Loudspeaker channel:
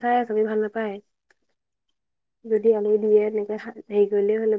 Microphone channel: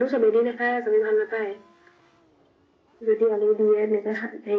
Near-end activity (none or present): none